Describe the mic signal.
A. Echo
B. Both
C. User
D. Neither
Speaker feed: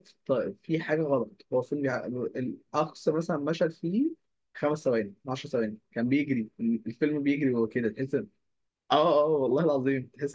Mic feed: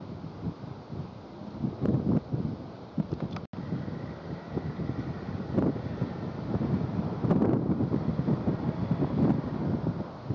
D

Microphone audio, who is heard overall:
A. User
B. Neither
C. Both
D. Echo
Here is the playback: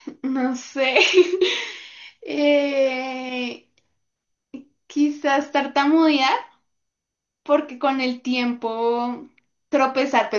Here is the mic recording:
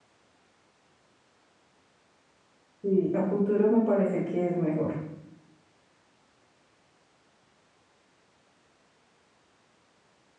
A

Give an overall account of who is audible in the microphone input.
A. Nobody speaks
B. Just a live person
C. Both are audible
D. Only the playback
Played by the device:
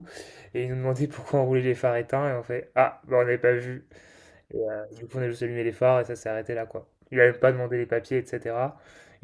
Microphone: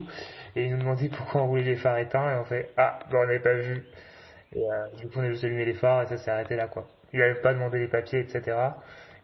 D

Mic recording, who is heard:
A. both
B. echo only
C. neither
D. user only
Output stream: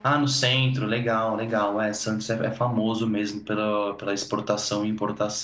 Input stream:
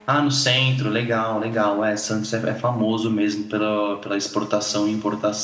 B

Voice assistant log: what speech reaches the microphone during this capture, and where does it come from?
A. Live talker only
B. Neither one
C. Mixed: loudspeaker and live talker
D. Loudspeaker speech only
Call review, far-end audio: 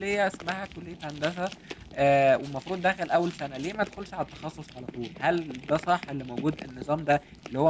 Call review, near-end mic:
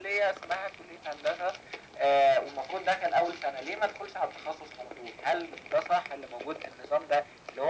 D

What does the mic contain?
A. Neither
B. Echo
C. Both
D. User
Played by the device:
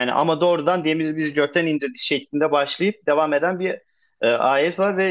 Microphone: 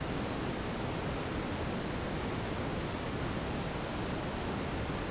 A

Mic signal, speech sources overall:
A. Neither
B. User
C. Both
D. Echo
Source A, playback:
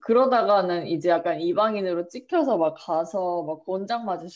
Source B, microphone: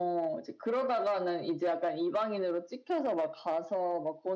D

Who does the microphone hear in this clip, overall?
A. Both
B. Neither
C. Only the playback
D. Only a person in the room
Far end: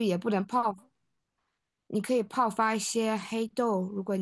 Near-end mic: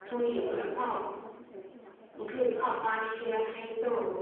A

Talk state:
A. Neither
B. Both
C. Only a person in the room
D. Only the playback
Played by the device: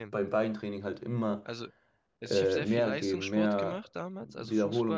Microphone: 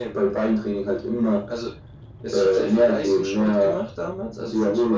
D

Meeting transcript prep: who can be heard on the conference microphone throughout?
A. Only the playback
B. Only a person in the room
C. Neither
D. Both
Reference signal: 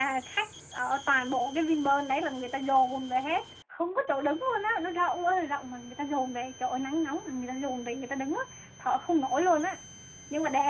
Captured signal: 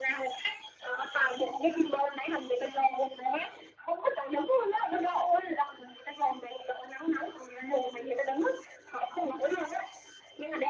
A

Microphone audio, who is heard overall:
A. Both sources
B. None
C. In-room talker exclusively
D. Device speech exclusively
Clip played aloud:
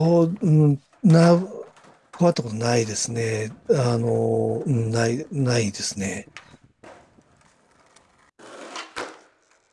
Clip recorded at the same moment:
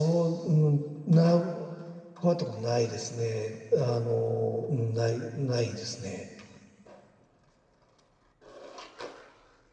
D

